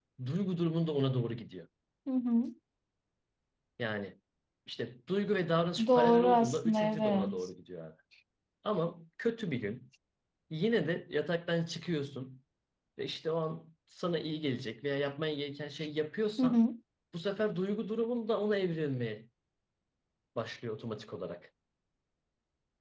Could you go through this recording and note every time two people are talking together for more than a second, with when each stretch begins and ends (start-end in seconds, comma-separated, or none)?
5.9-7.5